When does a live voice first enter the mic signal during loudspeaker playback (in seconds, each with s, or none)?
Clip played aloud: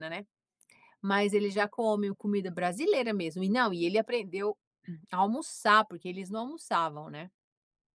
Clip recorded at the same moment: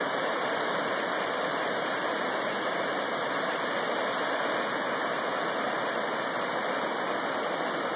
none